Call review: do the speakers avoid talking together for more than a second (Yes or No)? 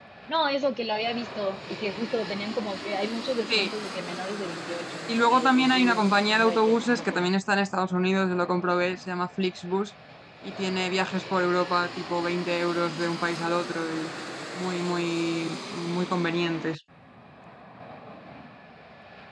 No